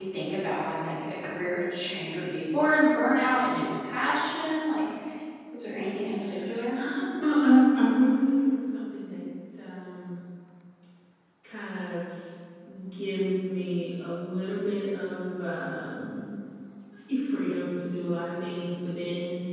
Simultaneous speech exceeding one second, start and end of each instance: none

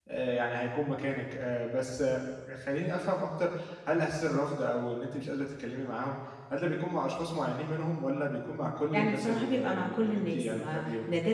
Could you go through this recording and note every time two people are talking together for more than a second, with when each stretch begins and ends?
8.9-10.8

